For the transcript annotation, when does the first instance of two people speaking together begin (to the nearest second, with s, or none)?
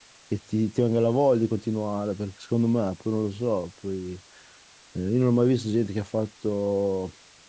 none